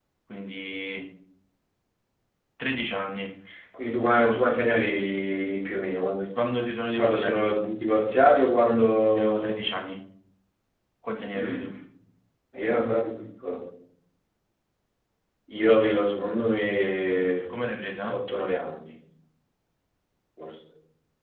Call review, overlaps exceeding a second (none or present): none